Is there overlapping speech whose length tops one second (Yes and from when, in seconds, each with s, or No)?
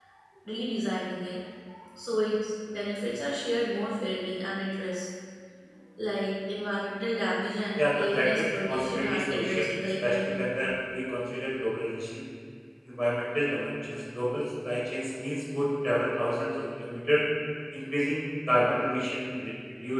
Yes, from 7.8 s